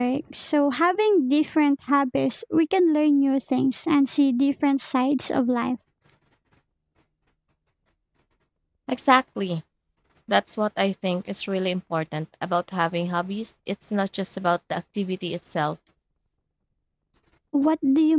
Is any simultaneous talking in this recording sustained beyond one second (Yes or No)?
No